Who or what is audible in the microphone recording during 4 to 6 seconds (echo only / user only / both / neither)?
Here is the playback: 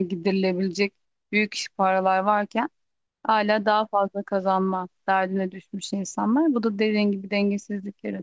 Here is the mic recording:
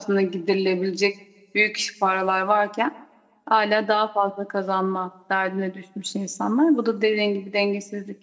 echo only